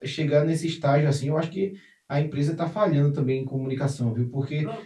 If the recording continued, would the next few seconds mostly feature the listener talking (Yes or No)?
No